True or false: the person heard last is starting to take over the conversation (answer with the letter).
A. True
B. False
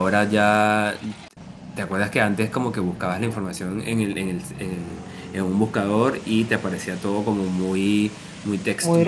A